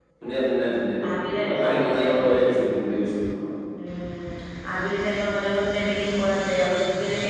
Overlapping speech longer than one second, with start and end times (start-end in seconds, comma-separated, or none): 1.1-2.5